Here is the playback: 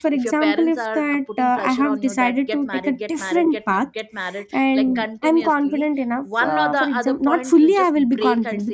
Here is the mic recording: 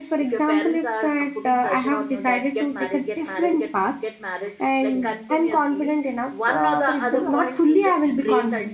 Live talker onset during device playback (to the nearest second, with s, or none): 7 s